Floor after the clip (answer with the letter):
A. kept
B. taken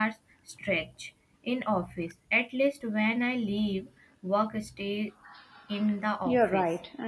B